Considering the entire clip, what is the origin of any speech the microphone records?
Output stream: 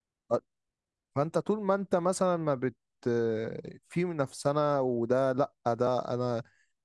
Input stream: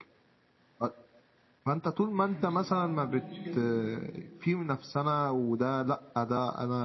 both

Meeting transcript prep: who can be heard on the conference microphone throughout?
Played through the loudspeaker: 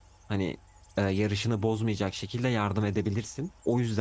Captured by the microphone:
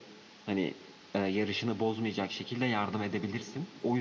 echo only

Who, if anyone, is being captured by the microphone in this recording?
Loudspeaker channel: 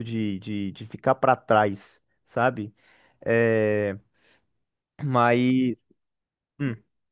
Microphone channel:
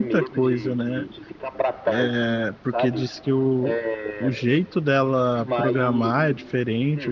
both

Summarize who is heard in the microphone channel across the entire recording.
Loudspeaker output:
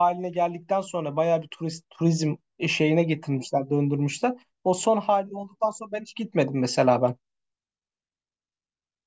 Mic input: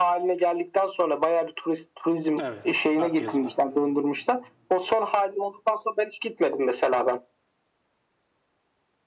both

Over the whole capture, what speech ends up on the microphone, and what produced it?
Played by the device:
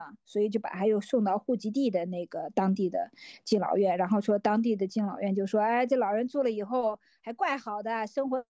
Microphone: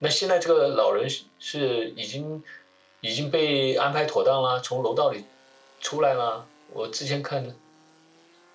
user only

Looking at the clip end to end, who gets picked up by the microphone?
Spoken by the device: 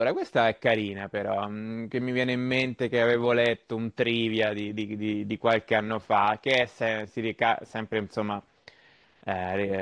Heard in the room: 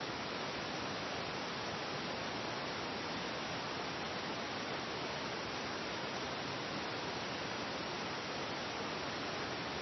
neither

